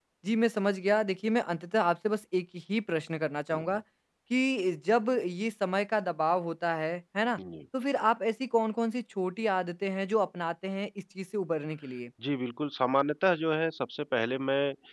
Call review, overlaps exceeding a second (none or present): none